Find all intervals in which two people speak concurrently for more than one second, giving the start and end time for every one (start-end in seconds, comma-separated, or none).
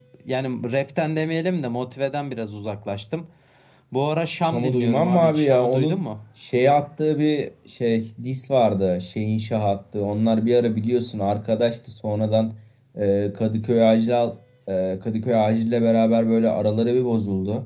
4.5-6.0